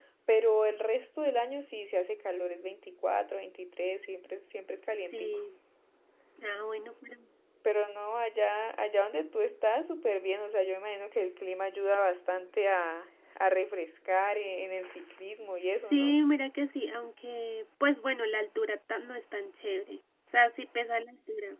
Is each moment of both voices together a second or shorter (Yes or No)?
Yes